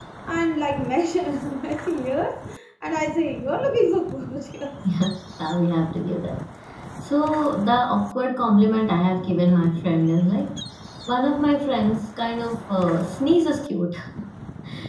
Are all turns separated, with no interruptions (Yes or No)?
Yes